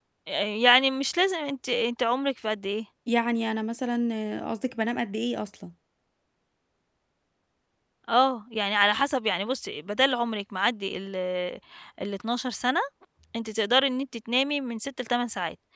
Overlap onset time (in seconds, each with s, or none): none